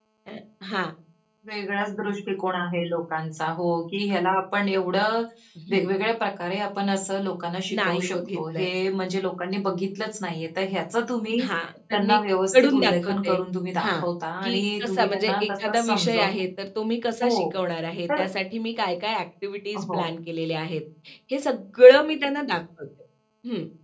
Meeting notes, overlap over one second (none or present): present